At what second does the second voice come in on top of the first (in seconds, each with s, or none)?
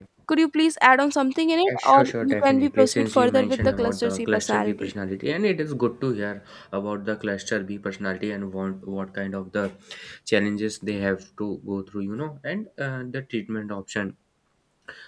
1.6 s